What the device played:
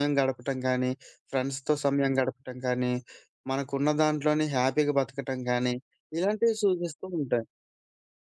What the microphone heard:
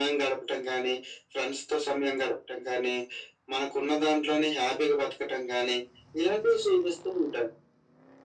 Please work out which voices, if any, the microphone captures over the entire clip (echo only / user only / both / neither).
echo only